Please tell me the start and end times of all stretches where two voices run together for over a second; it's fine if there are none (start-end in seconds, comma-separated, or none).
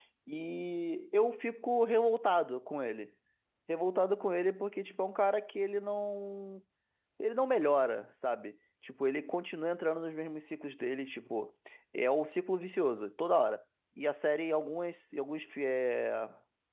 none